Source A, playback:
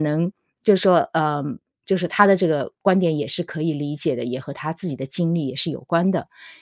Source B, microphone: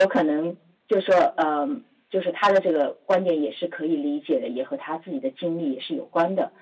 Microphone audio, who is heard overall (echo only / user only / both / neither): echo only